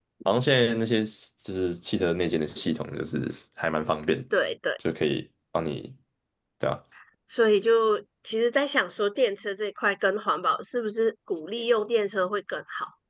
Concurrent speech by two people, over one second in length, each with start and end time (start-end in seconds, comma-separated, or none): none